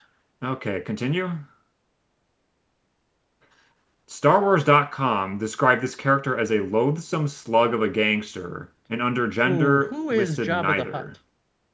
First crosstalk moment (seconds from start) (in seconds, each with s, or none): 9.4 s